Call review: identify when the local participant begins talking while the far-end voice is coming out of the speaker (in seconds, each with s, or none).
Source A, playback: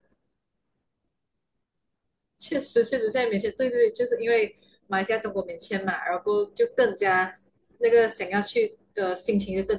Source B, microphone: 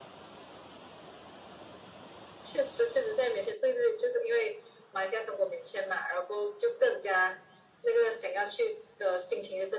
none